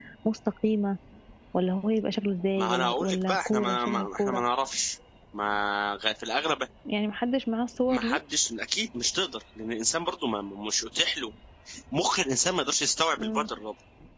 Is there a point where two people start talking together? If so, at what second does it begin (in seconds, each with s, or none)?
2.6 s